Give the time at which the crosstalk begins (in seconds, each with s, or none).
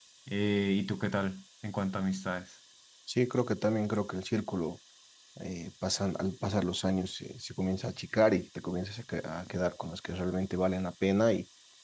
none